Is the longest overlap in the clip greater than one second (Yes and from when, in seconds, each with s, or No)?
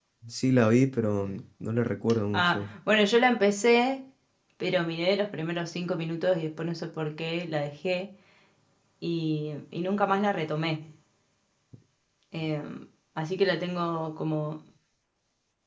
No